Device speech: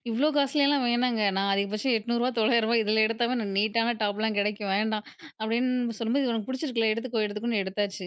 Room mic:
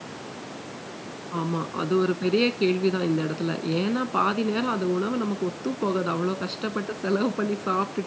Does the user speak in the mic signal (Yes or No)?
Yes